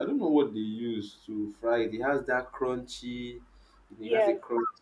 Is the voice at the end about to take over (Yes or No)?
Yes